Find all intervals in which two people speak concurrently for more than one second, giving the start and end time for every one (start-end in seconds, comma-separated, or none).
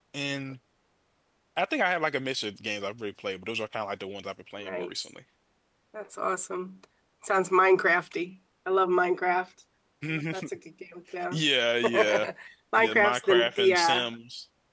12.8-14.0